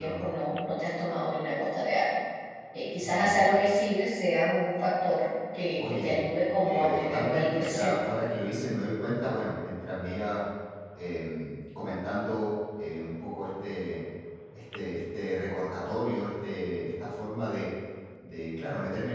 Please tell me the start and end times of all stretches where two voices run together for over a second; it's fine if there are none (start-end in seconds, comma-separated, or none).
6.6-8.0